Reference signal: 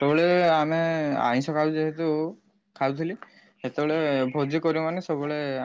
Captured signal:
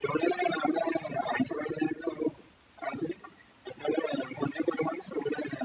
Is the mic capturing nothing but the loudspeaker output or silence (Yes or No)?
Yes